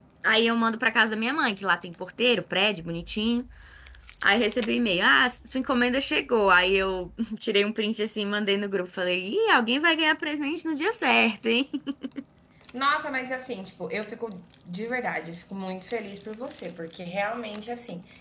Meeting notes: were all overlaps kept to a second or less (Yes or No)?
Yes